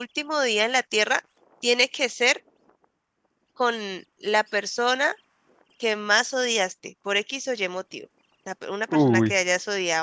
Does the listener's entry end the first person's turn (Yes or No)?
No